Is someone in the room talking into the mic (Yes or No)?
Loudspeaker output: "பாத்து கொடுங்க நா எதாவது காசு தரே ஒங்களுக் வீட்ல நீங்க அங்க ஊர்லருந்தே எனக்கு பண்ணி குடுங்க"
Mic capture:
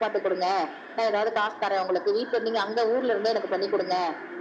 No